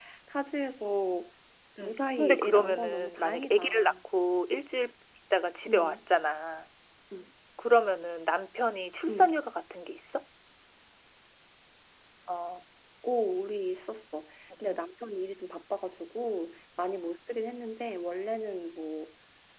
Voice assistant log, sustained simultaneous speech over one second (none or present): present